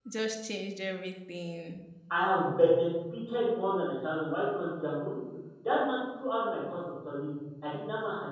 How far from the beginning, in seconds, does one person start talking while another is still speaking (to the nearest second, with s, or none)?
none